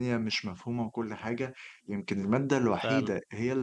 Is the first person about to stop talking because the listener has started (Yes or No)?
No